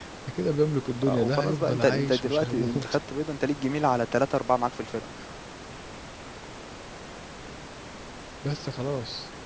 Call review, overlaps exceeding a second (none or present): present